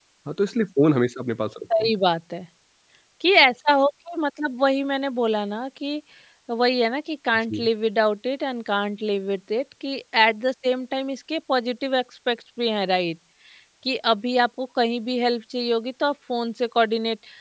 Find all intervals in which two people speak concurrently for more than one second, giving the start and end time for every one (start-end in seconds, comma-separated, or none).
none